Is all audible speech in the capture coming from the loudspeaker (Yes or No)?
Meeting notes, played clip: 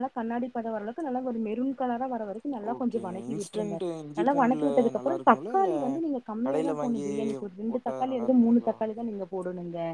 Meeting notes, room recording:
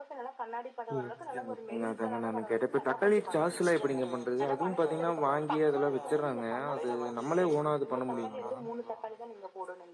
No